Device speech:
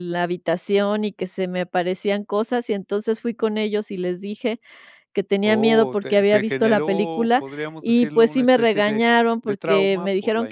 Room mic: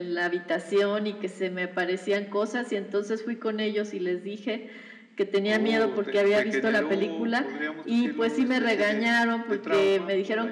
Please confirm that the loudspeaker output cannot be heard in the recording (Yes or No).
No